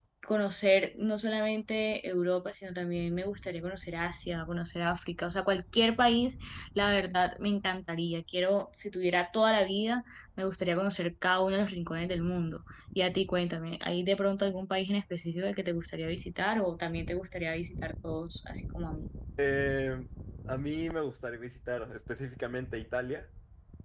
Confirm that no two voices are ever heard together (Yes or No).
Yes